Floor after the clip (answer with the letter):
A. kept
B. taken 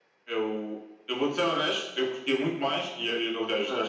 A